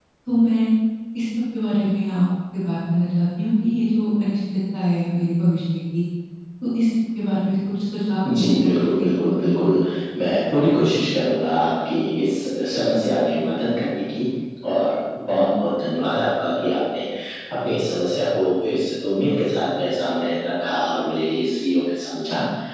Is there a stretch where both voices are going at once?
Yes, from 8.2 s

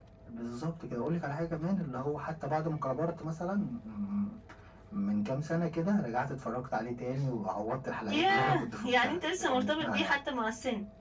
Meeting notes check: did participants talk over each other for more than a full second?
Yes, from 8.1 s

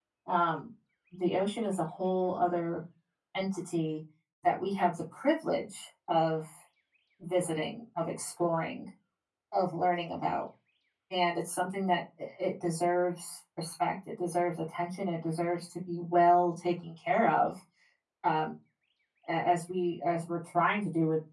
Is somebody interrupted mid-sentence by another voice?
No

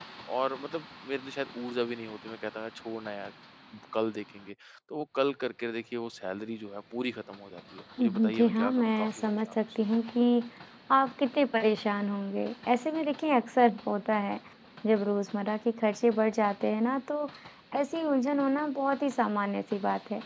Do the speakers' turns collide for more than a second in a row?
Yes, from 8.0 s

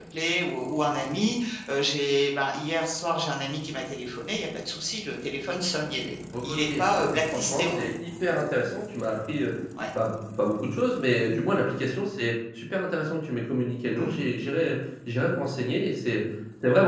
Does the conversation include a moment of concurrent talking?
Yes, from 6.6 s

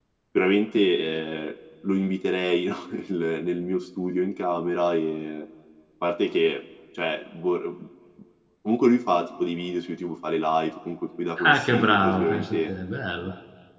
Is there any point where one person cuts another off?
Yes, from 11.4 s

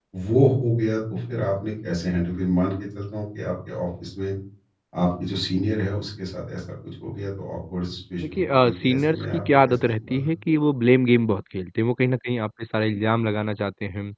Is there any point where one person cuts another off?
Yes, from 8.2 s

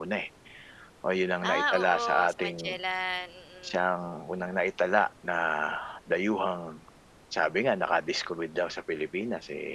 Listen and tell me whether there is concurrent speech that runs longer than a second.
Yes, from 1.5 s

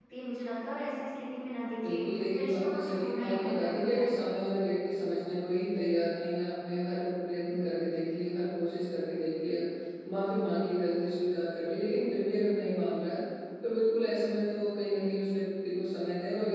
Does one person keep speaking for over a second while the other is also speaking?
Yes, from 1.8 s

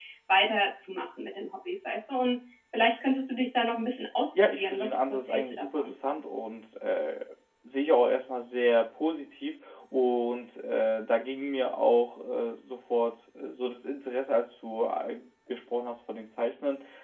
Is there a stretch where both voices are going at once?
Yes, from 4.3 s

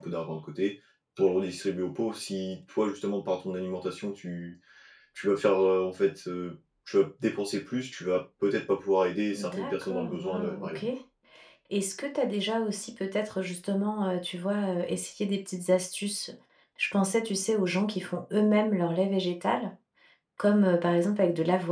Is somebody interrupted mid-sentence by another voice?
Yes, from 9.3 s

